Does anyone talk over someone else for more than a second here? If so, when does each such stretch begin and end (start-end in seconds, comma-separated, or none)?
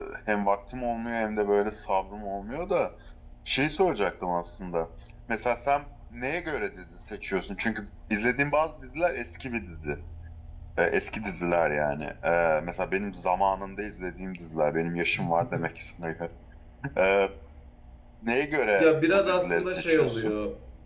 18.8-20.3